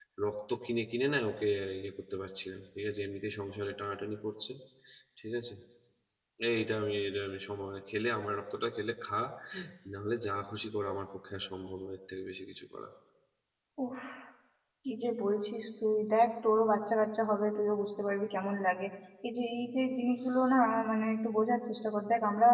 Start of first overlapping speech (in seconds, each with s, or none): none